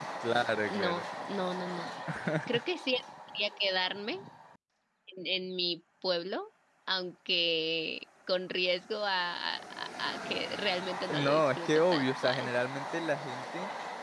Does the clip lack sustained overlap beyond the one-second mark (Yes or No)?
No